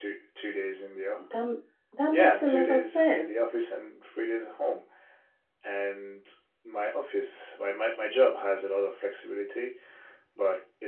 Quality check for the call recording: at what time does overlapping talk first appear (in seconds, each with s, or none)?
2.1 s